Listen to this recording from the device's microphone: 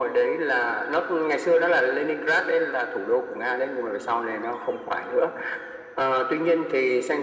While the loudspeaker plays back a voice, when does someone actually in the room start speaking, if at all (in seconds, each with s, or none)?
none